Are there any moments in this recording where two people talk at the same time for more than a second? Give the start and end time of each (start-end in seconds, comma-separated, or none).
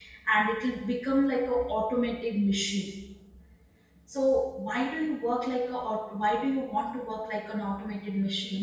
none